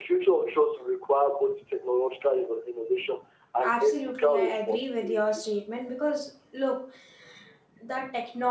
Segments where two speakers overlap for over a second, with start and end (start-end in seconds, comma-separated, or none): 3.6-5.5